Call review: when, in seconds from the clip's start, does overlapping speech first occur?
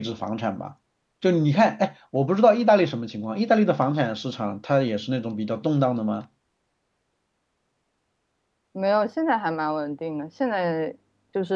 none

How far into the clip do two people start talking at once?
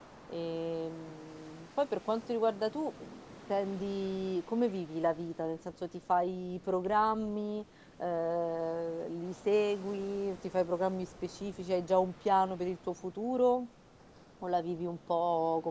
none

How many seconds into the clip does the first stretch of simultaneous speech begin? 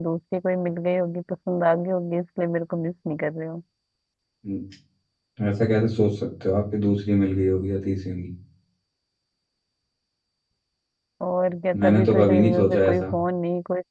11.8 s

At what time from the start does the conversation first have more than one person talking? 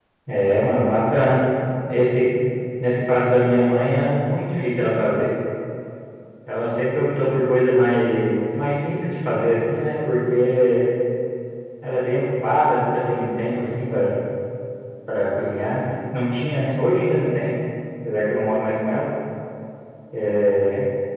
none

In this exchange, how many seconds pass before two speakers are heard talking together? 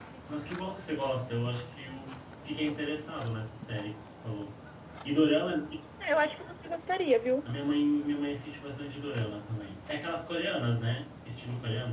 none

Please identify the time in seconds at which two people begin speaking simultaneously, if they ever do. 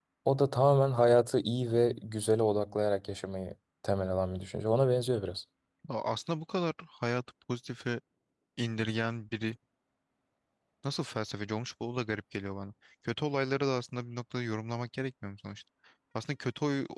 none

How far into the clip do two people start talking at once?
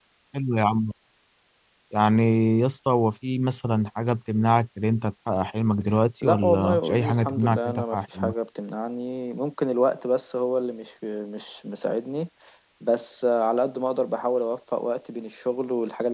6.2 s

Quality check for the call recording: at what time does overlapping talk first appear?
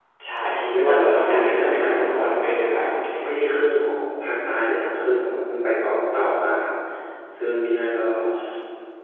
0.6 s

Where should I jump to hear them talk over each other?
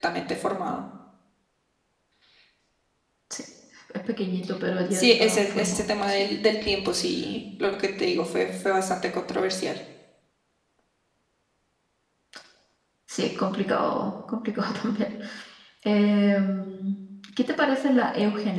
4.9 s

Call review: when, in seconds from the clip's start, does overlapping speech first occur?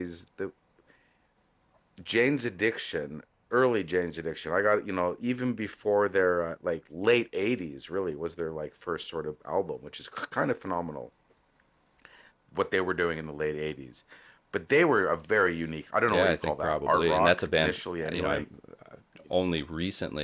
16.1 s

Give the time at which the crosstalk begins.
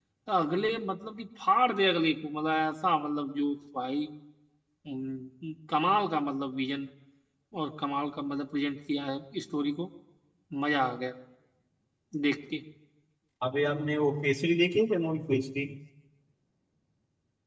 none

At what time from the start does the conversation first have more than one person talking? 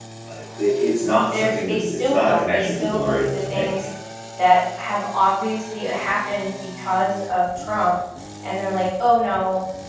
1.3 s

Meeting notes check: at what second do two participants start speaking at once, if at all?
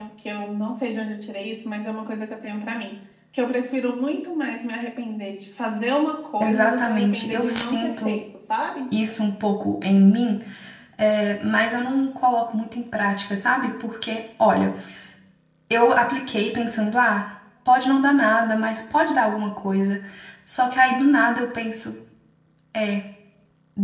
6.4 s

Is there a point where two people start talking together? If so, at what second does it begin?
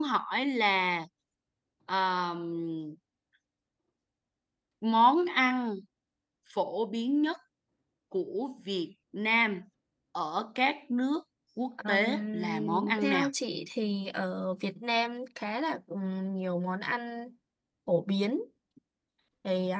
11.8 s

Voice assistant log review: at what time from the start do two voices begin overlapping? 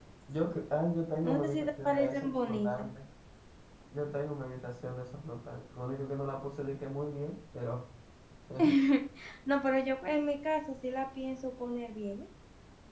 1.2 s

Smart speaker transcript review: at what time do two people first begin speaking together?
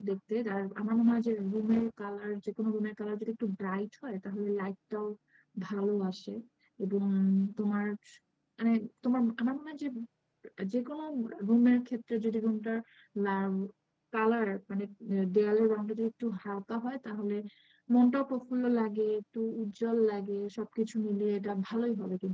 none

